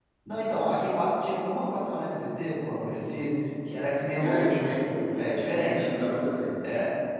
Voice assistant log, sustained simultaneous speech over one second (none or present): none